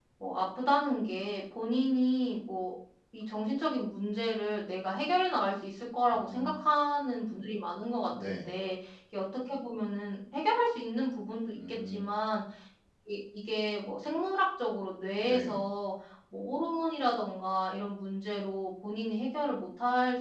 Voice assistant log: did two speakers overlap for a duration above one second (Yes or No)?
No